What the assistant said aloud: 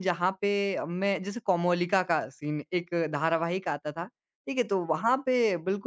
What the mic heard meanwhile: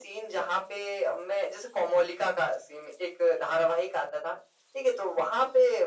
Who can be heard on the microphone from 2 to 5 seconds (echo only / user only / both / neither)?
echo only